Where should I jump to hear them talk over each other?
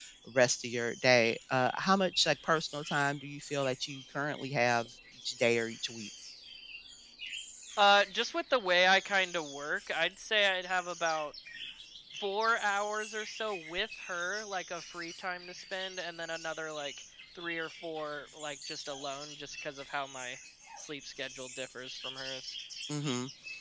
none

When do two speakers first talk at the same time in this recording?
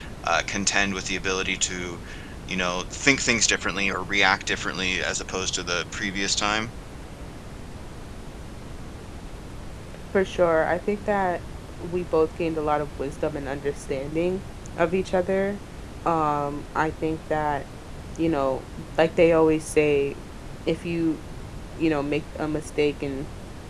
none

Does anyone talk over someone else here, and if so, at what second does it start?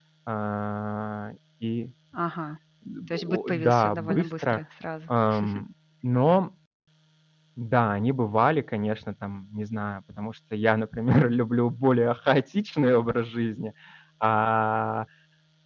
3.1 s

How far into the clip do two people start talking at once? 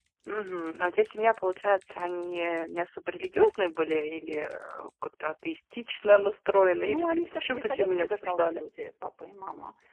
6.8 s

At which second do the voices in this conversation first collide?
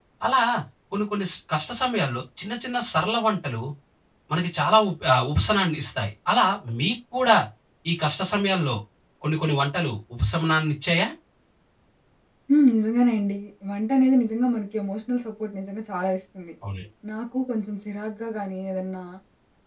none

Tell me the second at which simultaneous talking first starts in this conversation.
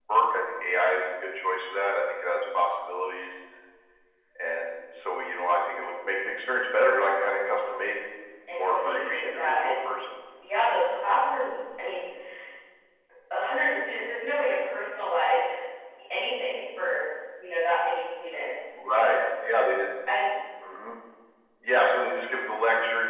8.5 s

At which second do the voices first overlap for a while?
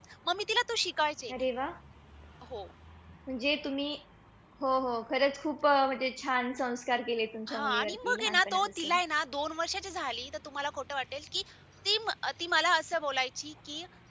7.5 s

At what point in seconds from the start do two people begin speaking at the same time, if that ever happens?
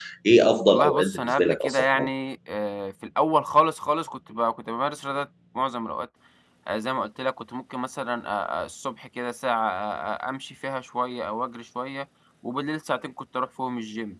0.7 s

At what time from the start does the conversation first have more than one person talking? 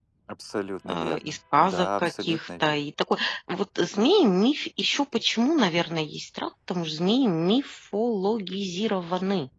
0.8 s

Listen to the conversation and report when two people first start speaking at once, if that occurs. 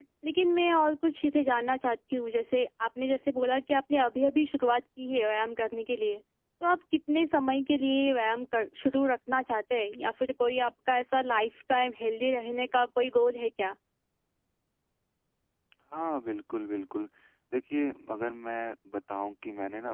none

